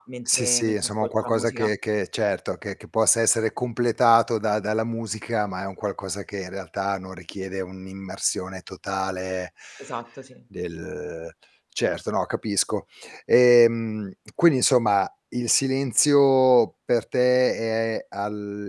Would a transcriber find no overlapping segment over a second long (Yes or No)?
No